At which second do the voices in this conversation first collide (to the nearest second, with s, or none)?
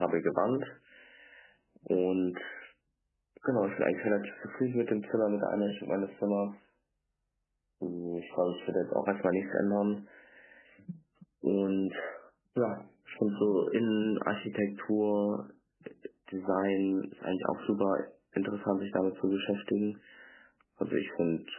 none